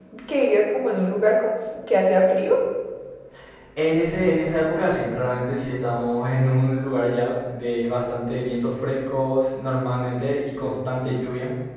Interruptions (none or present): none